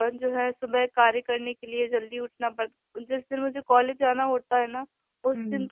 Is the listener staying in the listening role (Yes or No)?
Yes